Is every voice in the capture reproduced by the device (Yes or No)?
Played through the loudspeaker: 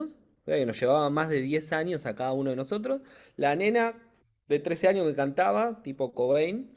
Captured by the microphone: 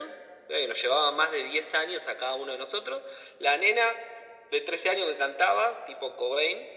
Yes